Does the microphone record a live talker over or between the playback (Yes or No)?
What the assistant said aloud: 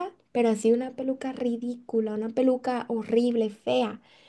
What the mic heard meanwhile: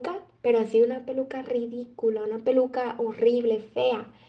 No